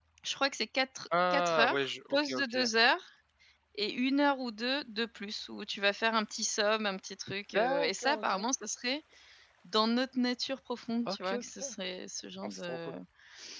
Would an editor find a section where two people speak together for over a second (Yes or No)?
Yes